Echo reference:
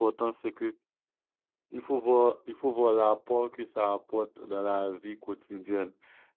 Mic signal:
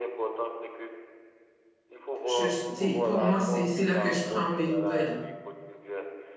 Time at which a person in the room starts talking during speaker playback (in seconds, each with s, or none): 2.2 s